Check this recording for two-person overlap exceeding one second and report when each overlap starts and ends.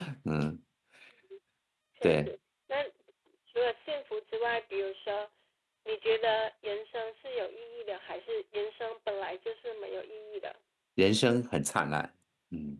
none

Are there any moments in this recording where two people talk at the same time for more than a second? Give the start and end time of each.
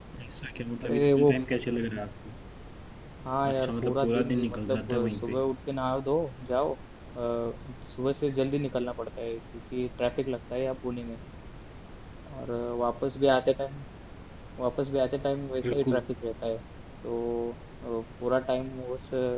3.5-5.4

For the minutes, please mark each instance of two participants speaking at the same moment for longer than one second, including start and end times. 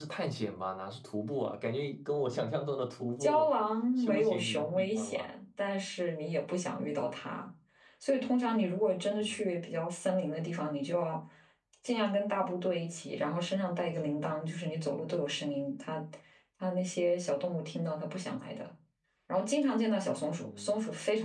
4.0-5.3

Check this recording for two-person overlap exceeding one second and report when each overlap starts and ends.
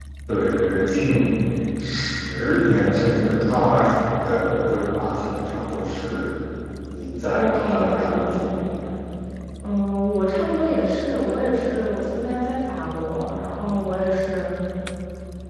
7.3-8.6

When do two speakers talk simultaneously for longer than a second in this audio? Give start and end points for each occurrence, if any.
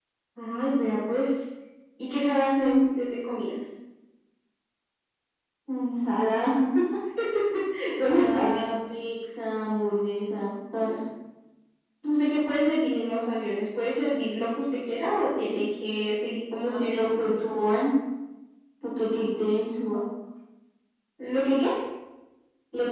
none

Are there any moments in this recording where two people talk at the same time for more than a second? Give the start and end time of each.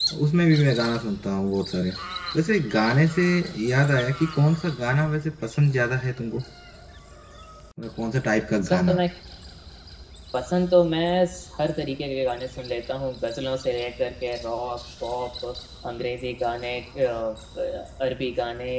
none

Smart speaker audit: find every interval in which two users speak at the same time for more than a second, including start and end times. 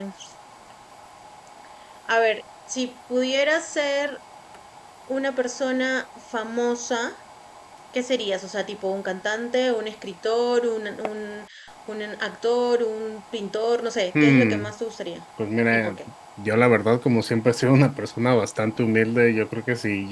none

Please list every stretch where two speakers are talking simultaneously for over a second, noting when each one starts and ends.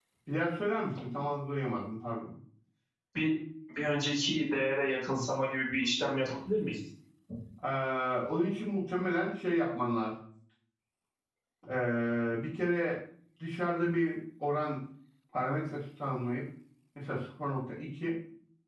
none

